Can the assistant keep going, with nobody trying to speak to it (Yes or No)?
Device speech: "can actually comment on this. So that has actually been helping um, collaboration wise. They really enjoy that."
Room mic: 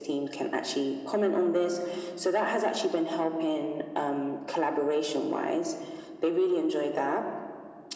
Yes